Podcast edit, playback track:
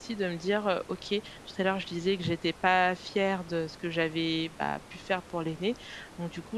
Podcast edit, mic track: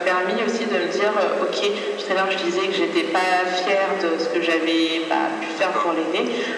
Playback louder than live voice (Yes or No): Yes